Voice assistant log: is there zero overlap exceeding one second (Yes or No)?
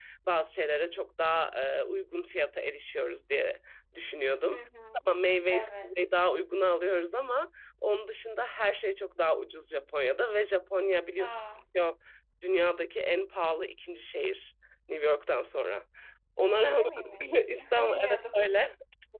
No